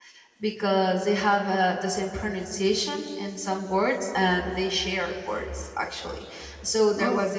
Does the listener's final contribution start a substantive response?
No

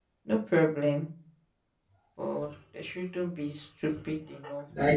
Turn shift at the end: Yes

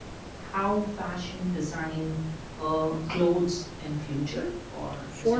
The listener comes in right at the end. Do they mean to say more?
Yes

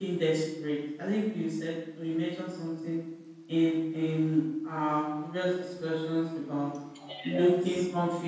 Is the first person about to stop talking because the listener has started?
No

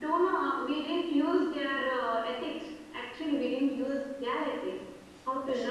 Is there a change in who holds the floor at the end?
No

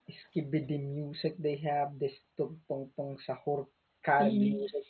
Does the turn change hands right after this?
No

